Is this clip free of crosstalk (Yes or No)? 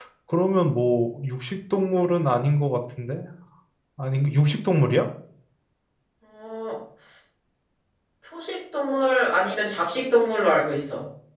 Yes